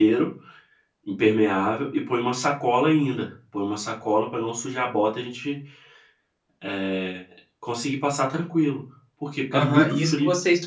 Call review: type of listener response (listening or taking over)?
taking over